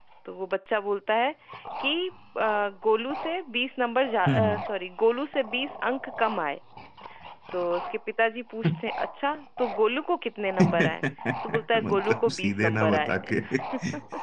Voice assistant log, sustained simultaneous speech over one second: present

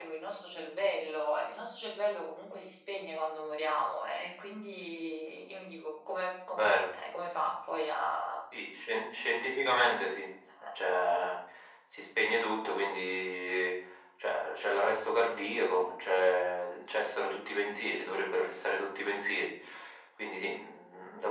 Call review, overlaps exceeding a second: none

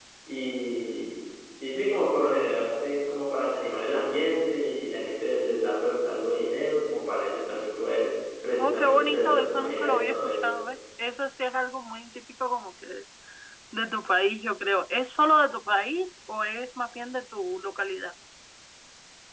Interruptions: present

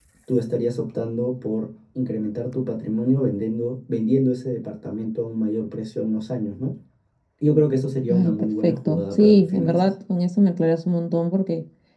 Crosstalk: present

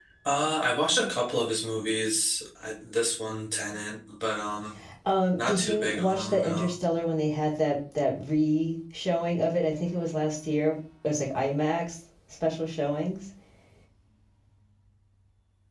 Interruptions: present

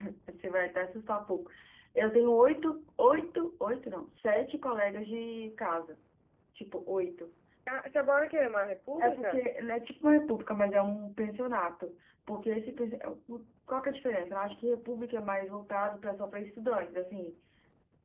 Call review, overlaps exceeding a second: none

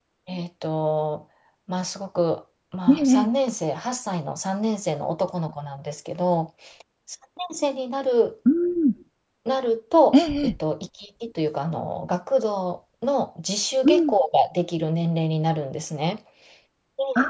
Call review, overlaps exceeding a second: none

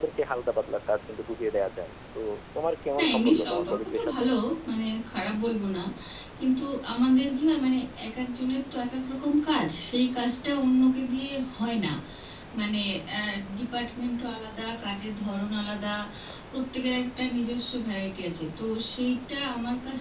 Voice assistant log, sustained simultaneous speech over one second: present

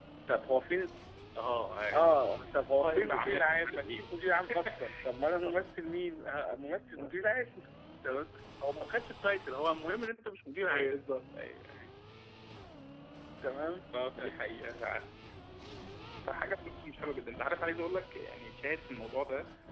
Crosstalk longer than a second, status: present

